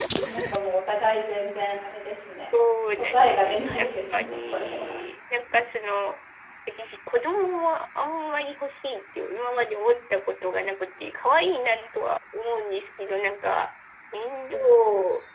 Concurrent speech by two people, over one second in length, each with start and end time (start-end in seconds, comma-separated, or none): 3.0-5.0